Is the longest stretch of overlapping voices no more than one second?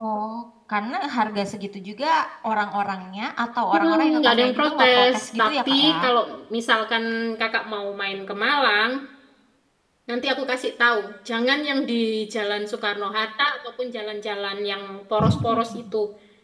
No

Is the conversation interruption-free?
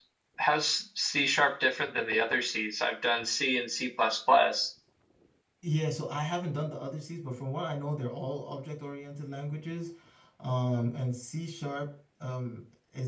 Yes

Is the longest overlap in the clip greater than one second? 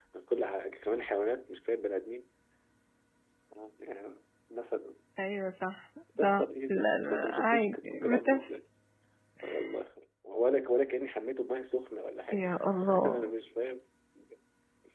Yes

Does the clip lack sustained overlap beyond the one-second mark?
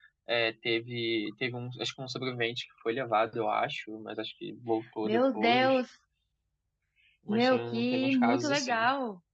No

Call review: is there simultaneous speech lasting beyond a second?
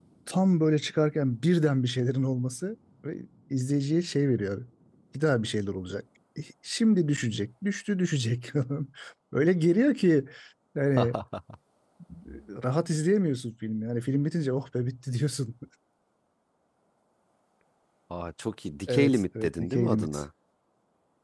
Yes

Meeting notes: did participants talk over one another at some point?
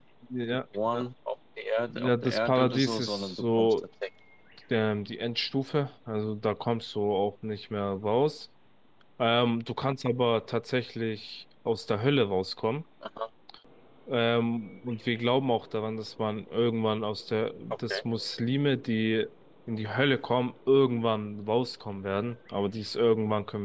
Yes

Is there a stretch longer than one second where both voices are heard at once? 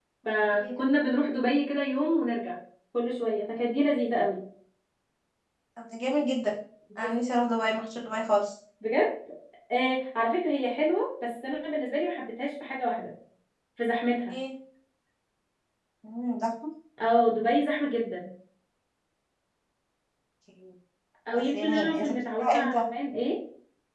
Yes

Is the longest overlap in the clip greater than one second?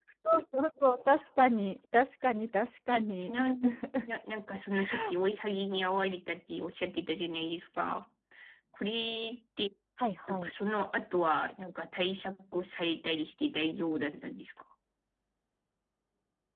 No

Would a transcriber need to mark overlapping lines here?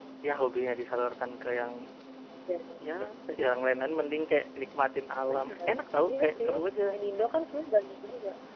Yes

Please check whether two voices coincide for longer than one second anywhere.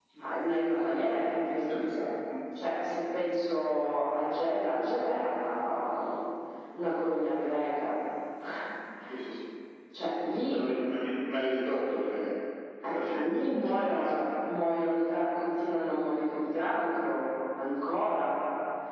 Yes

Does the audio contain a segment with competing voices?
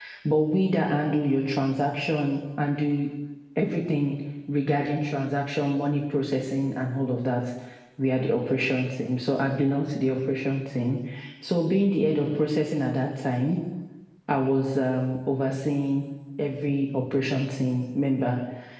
No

